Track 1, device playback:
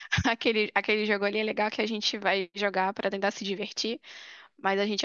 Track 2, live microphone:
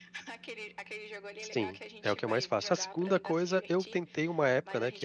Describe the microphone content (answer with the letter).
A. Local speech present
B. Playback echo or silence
A